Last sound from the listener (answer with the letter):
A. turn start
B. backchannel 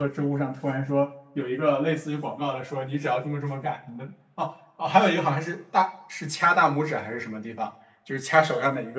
B